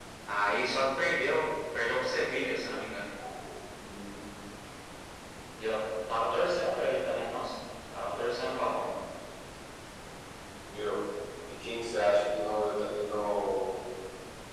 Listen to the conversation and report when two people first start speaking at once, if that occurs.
none

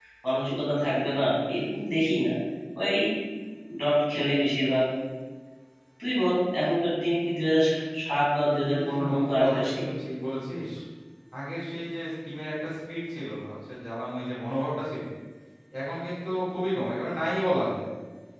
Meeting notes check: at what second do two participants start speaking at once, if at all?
8.6 s

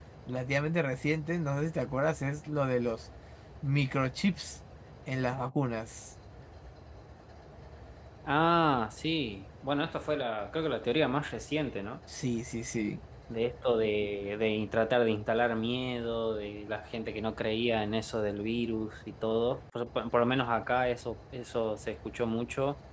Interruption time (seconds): none

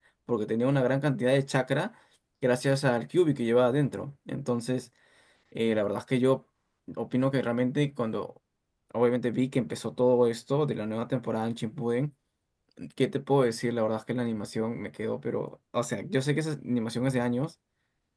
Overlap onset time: none

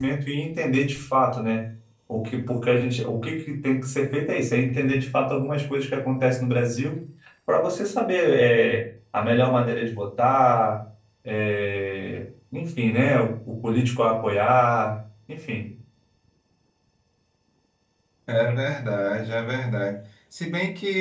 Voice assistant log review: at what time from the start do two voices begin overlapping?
none

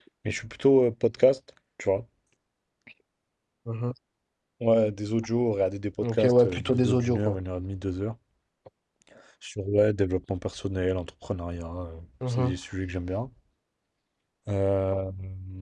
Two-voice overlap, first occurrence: 6.2 s

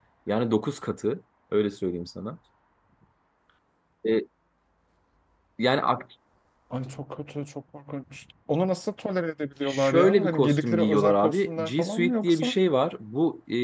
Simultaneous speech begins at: 9.6 s

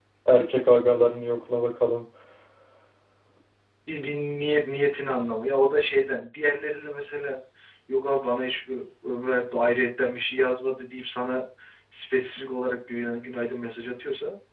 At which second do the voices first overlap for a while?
none

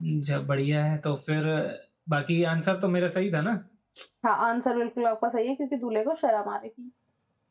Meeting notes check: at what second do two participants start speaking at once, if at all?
none

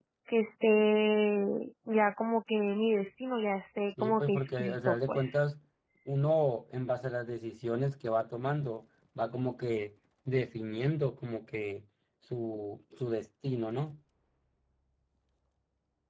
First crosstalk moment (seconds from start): 4.0 s

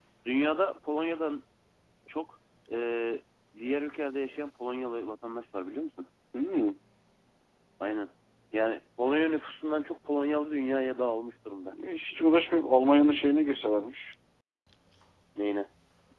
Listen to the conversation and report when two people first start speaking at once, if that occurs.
none

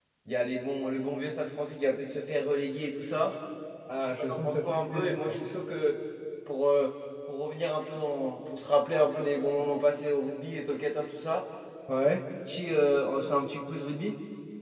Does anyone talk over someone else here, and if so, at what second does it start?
4.0 s

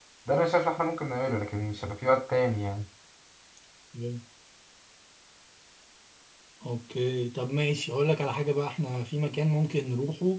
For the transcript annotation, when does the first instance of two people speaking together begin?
none

